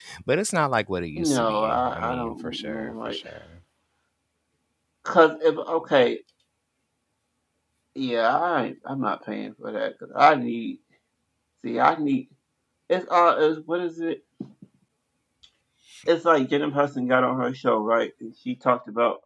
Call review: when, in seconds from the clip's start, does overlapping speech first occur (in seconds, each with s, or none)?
1.2 s